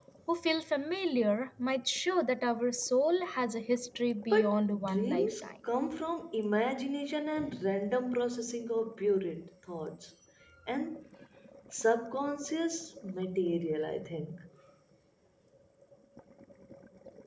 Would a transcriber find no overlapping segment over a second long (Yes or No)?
No